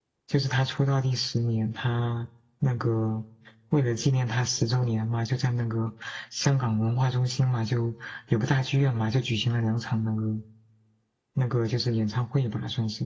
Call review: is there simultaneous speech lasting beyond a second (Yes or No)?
No